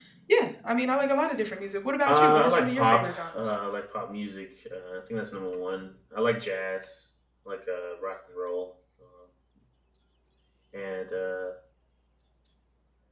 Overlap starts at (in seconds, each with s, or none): 2.1 s